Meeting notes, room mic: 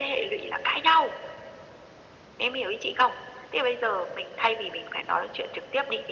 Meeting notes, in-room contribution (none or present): none